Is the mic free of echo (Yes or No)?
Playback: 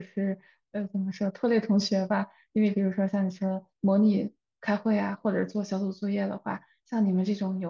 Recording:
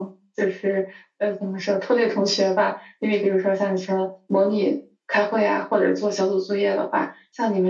No